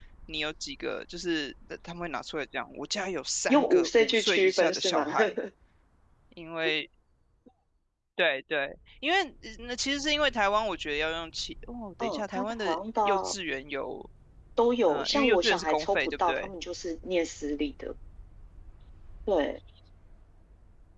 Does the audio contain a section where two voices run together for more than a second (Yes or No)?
Yes